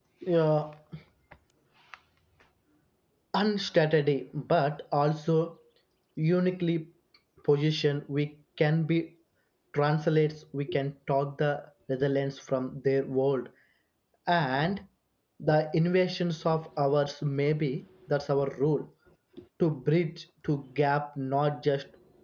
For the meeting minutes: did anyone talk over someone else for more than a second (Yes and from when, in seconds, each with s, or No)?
No